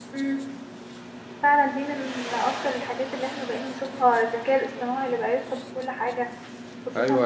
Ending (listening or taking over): taking over